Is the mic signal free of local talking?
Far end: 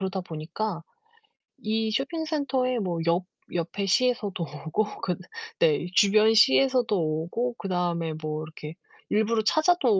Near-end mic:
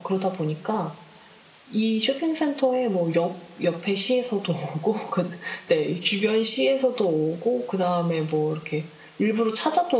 Yes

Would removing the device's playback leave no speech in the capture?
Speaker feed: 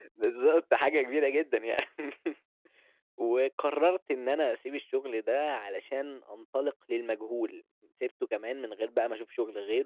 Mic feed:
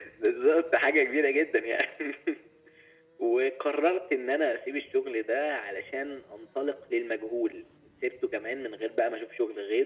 Yes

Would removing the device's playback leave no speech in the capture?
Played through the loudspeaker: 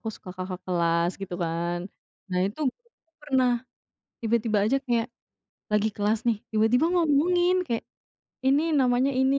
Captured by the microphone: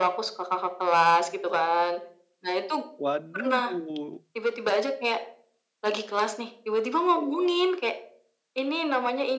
No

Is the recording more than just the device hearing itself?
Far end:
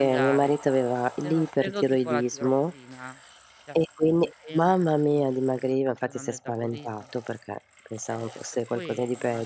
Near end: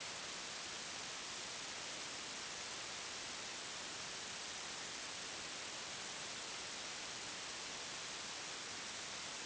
No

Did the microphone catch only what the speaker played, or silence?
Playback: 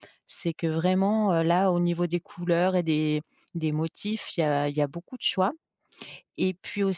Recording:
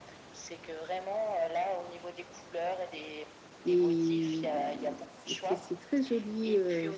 No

